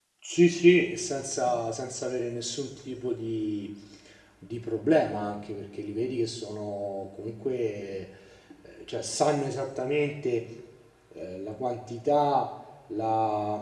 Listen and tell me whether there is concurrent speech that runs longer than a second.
No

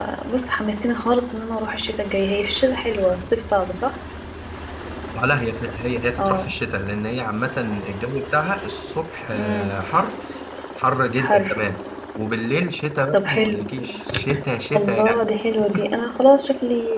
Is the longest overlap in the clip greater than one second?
No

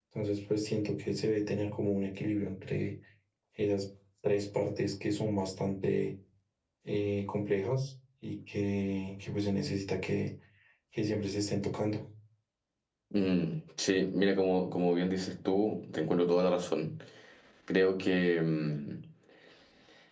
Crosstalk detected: No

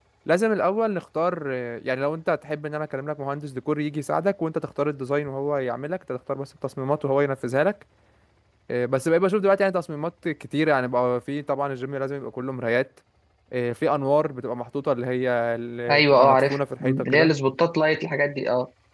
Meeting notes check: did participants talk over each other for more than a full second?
Yes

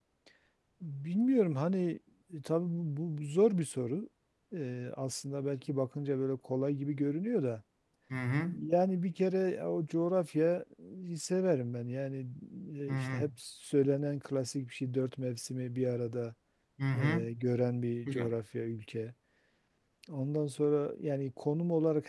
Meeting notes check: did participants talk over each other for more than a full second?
No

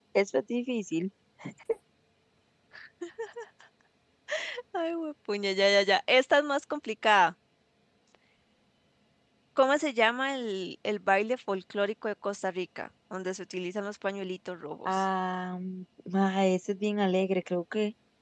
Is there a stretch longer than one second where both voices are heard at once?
No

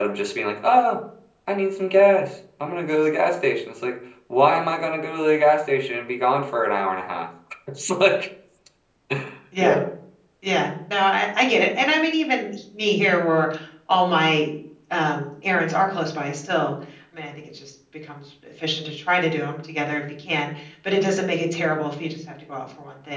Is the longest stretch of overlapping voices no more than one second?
Yes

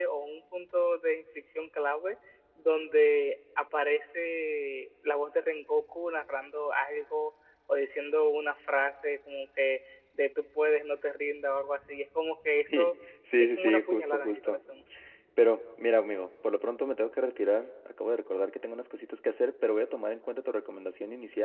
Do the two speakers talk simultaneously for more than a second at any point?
Yes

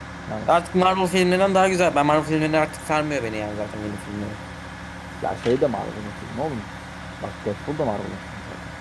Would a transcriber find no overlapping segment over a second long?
Yes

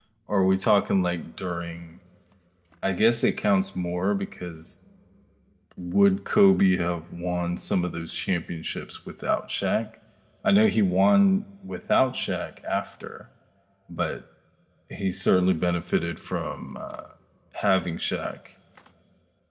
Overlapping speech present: No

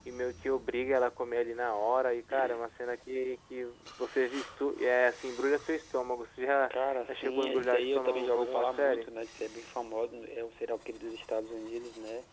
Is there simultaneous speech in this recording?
Yes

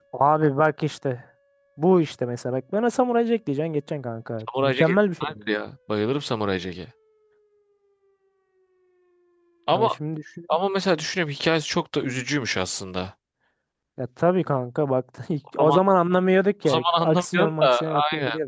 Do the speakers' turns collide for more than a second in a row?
Yes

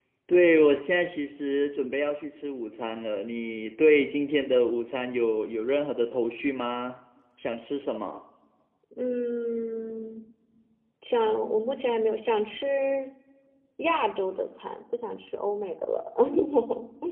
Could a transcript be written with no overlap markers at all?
Yes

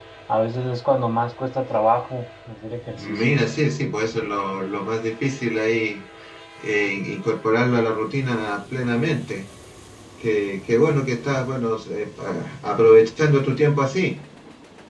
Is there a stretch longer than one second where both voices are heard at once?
No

